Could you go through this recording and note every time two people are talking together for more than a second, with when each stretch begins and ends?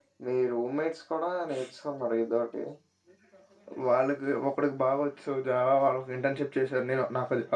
none

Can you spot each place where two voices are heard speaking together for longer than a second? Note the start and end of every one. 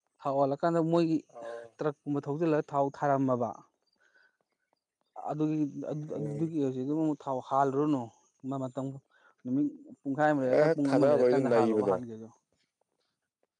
10.6-11.9

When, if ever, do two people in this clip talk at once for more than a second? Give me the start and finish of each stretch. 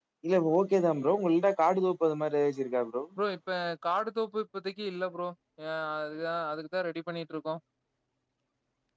none

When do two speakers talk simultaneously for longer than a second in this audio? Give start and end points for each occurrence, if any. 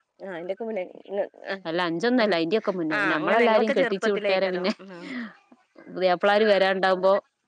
3.0-4.7

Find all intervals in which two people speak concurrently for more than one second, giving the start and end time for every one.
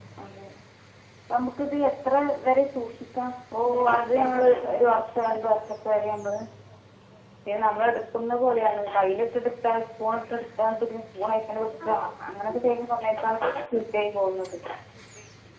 3.6-5.4

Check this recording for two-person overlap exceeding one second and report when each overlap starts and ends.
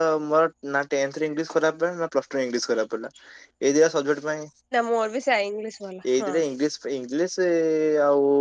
none

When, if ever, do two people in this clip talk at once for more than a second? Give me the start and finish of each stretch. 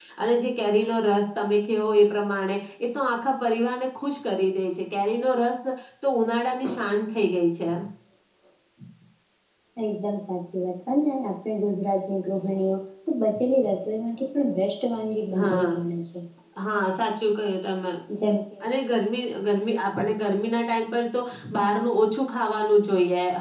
none

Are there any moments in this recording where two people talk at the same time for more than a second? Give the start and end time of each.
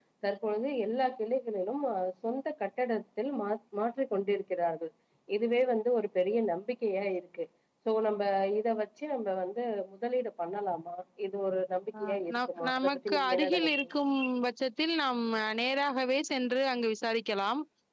12.0-13.9

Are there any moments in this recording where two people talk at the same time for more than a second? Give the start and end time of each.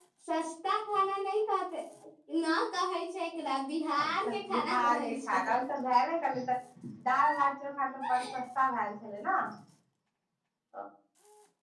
4.0-5.4

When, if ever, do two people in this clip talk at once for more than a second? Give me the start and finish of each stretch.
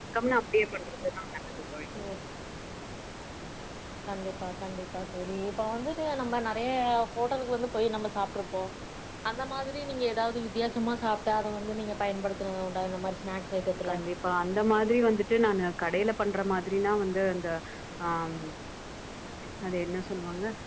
none

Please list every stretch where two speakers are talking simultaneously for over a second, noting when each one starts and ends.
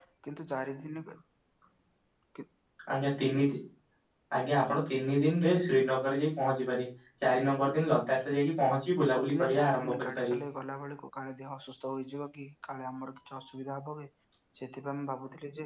9.0-10.4

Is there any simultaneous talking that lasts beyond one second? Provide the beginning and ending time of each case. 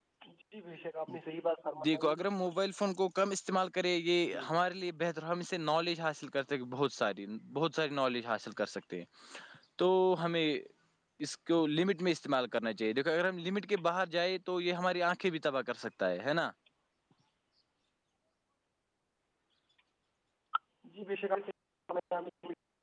none

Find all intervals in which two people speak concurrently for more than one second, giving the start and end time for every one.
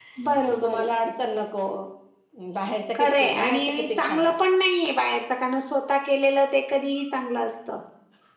3.0-4.3

